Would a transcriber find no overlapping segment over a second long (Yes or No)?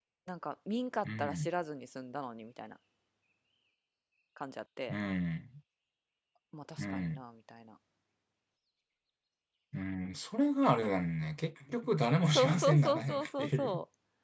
No